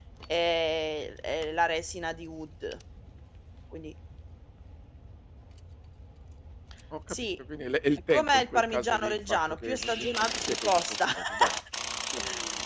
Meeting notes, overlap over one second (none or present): present